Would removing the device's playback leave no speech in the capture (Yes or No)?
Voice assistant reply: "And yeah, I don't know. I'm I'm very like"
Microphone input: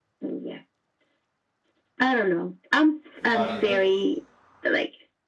No